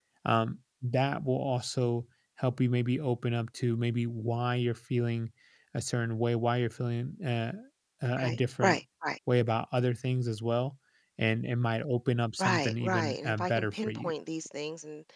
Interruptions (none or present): present